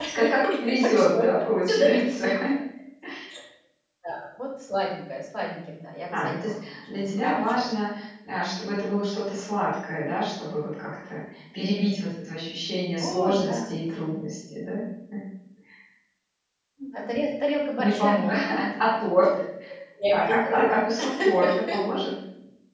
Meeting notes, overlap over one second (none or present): present